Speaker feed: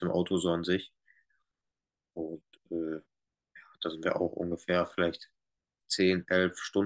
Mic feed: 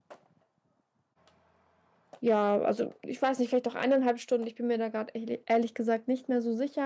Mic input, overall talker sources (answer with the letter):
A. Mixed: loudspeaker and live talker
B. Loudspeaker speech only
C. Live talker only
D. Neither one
C